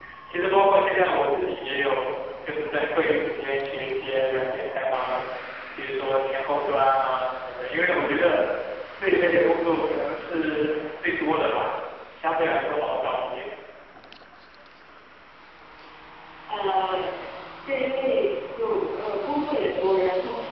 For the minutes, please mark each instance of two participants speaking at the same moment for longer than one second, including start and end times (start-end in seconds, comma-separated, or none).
none